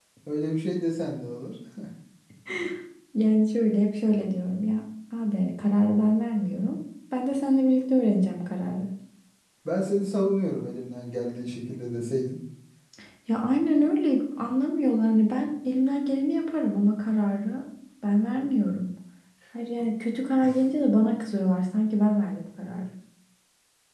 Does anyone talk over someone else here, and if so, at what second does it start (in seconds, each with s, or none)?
none